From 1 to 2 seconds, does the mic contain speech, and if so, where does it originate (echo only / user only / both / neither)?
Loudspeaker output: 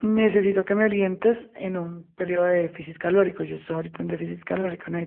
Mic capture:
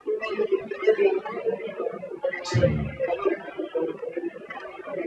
echo only